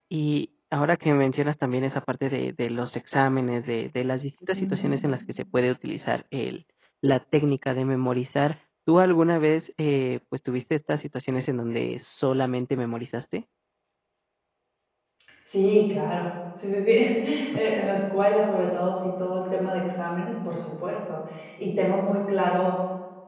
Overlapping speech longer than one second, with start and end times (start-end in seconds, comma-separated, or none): none